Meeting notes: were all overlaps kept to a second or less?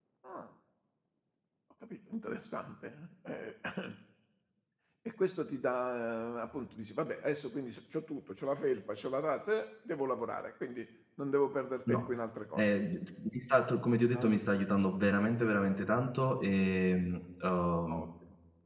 Yes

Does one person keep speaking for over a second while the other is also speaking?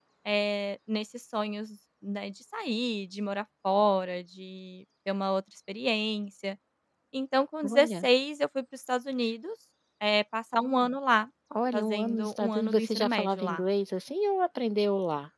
Yes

